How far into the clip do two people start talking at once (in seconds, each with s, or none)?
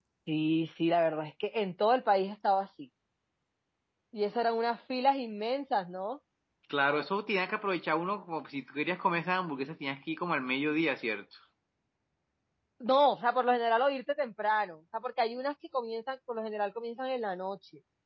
none